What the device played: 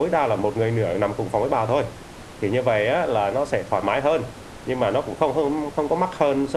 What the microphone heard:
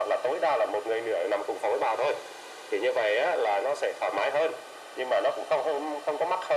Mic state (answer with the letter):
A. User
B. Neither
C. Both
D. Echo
D